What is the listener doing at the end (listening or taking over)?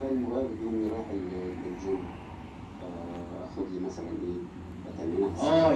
taking over